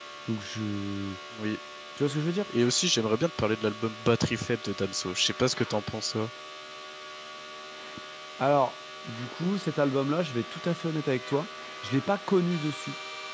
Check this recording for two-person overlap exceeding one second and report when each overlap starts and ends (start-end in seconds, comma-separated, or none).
none